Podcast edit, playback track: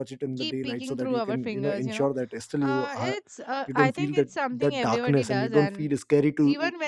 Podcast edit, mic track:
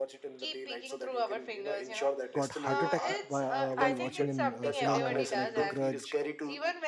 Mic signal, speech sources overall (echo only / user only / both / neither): both